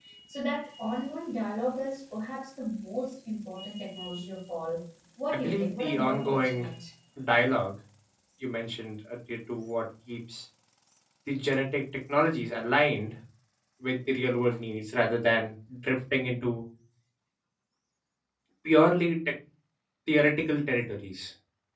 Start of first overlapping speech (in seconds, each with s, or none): 5.3 s